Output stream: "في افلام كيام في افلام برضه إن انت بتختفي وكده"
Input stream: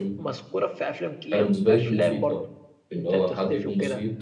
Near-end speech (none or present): present